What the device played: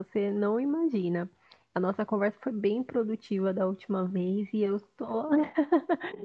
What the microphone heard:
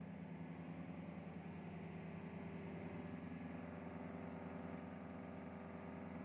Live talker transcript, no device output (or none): none